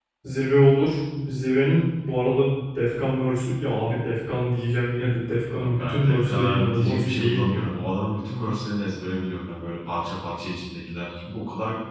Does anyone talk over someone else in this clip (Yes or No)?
Yes